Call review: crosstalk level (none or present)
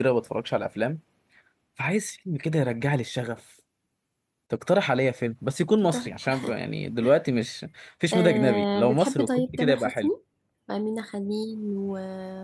present